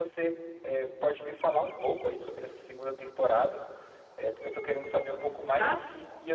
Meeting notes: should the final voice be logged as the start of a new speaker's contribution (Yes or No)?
No